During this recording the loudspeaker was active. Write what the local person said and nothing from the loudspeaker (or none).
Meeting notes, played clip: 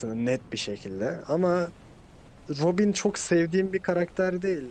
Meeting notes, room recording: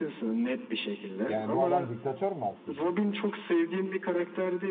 Yani bu adam diktatör mü aslında?